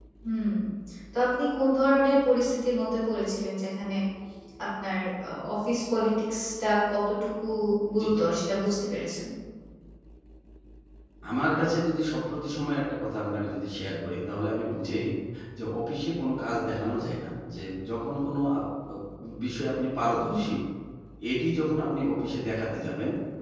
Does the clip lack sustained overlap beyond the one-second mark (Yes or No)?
Yes